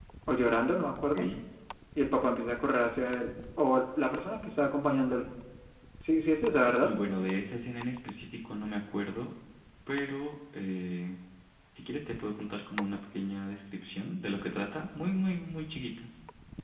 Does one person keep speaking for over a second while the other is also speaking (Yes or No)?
No